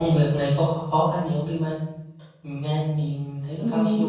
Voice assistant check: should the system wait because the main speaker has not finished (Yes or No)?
No